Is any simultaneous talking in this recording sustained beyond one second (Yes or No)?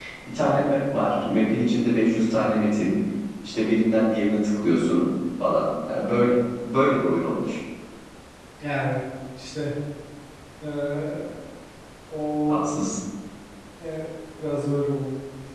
No